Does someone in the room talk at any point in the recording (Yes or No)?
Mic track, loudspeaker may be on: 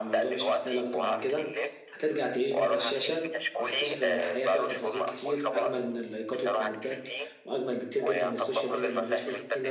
Yes